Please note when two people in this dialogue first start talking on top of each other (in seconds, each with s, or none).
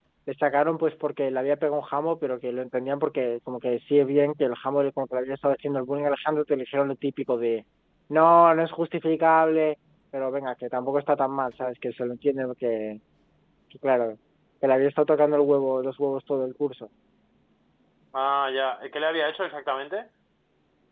none